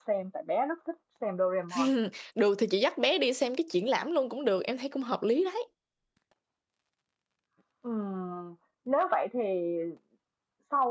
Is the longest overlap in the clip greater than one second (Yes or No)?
No